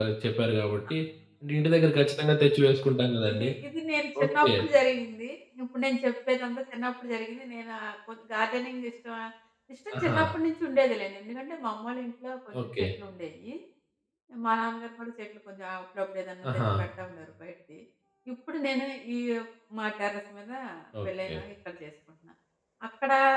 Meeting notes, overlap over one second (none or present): none